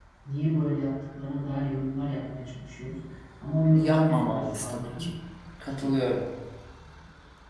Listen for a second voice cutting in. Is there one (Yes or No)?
Yes